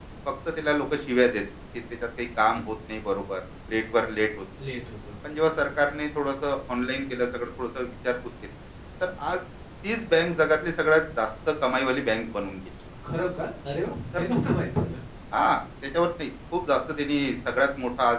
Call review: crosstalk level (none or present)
none